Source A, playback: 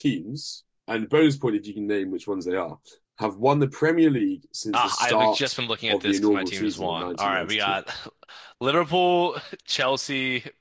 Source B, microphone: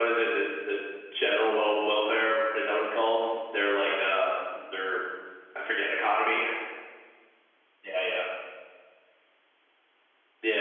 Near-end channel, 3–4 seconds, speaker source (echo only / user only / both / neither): user only